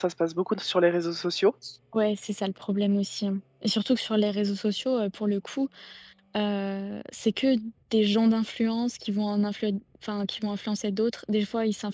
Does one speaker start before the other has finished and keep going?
No

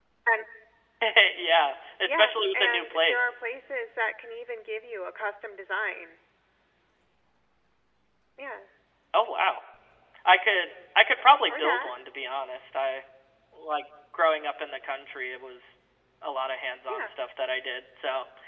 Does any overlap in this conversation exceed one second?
Yes, from 2.0 s

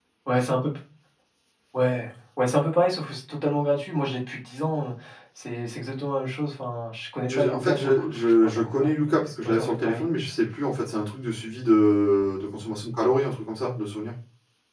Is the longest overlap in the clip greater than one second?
Yes, from 7.3 s

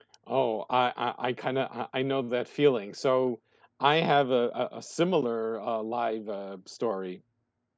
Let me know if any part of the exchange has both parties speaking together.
No

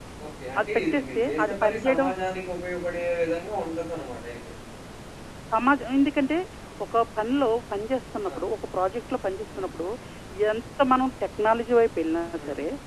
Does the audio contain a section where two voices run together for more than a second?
Yes, from 0.6 s

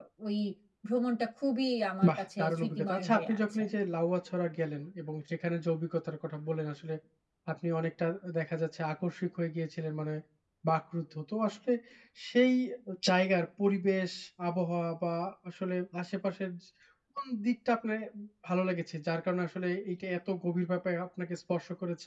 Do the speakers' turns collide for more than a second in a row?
Yes, from 2.0 s

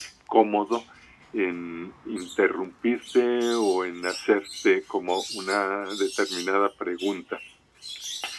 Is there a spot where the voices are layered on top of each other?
No

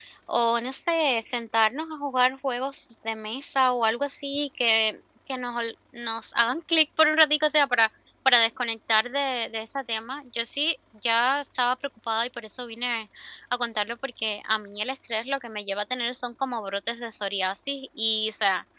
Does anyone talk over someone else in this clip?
No

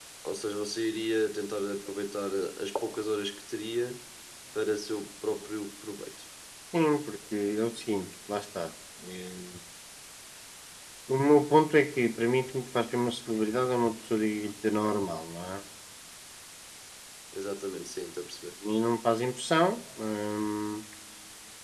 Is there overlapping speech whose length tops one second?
No

